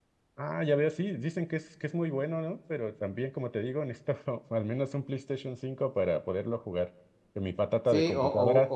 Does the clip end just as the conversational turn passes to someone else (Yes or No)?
Yes